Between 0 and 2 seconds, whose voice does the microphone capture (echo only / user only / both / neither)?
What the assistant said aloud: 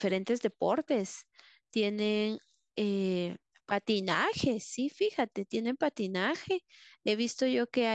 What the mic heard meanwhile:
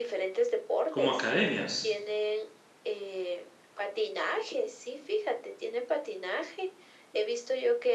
both